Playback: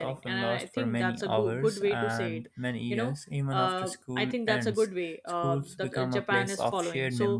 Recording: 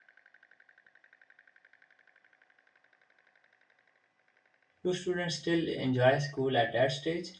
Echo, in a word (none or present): none